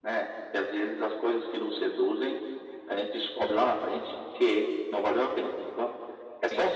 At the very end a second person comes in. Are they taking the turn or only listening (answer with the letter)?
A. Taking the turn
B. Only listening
B